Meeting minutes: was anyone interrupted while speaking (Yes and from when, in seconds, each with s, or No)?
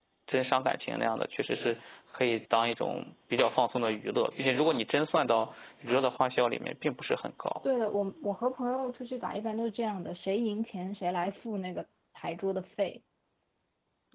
No